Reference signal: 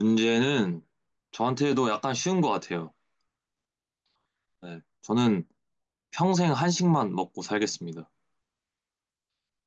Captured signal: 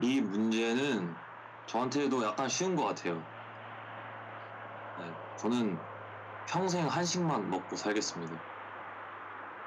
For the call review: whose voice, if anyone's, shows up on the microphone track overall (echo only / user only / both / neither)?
echo only